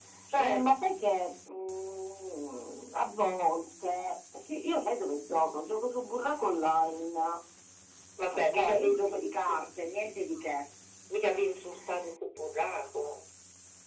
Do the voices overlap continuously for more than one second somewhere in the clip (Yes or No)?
Yes